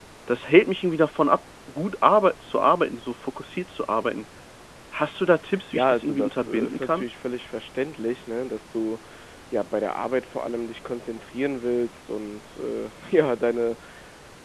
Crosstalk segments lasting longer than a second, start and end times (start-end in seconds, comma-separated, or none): 5.7-7.0